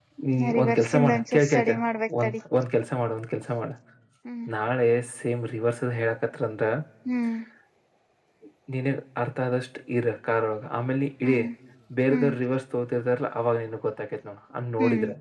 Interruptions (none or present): present